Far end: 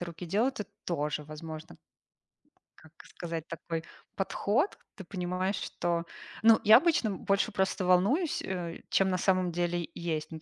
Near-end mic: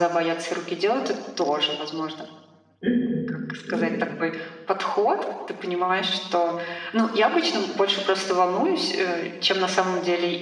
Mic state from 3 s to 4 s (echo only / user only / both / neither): both